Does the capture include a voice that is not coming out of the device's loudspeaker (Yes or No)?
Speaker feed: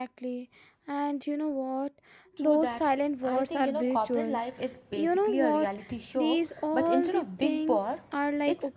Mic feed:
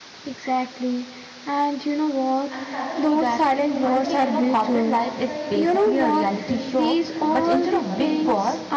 Yes